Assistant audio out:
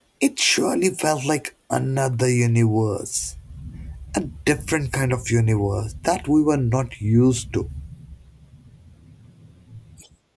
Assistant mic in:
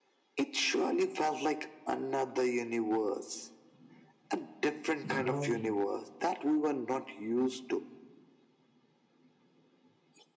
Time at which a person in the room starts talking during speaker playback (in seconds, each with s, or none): 5.0 s